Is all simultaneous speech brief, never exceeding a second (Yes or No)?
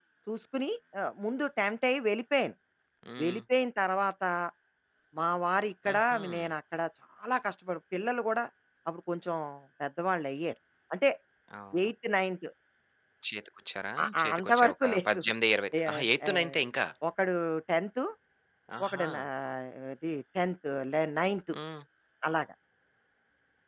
No